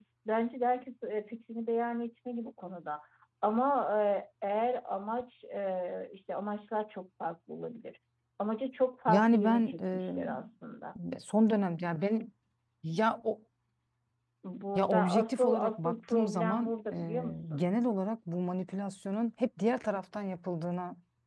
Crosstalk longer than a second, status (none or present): present